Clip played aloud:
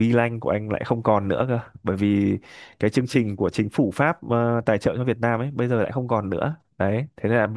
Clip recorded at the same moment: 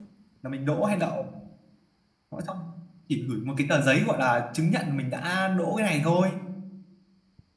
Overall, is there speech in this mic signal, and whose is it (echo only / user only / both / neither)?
user only